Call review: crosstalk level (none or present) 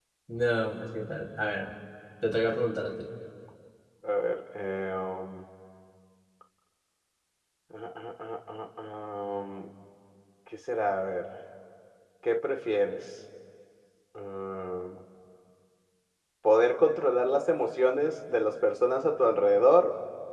none